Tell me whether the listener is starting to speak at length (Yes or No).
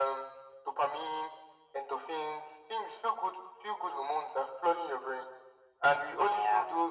No